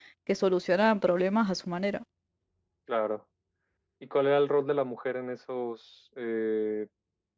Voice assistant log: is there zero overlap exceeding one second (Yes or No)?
Yes